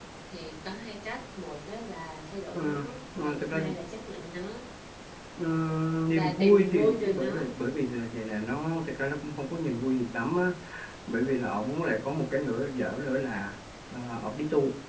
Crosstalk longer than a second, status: present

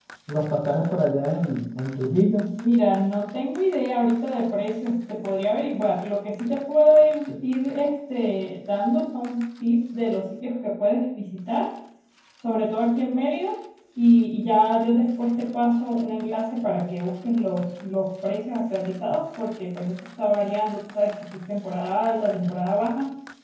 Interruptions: none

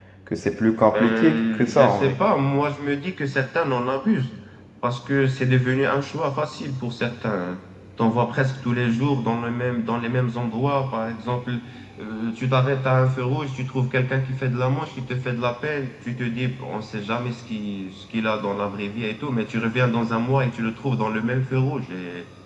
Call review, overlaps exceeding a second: present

